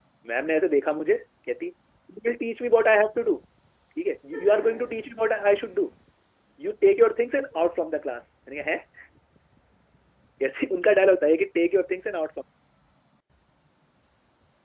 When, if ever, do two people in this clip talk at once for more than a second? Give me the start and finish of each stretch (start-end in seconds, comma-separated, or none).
none